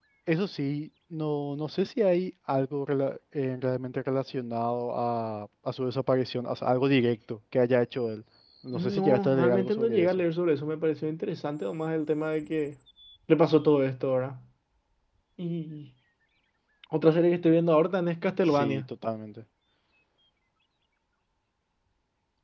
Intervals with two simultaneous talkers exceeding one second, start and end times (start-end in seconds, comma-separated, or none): 8.7-10.2